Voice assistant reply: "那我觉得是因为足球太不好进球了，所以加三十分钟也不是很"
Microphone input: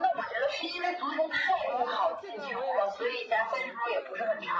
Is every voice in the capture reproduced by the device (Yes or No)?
No